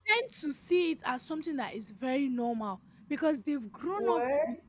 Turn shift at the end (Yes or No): No